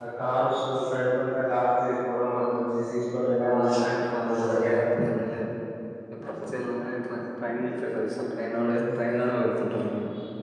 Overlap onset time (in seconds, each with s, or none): 3.3 s